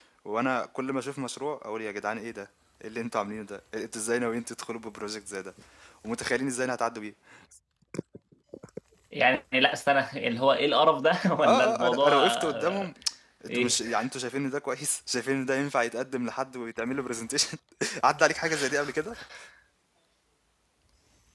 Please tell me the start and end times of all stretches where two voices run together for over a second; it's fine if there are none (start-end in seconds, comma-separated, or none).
11.4-12.9